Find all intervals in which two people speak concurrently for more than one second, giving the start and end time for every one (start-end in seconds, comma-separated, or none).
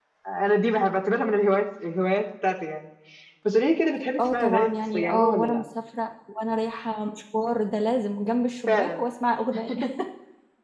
4.2-5.6